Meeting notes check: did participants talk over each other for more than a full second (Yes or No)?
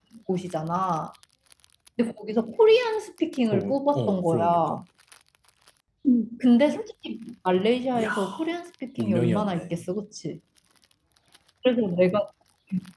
Yes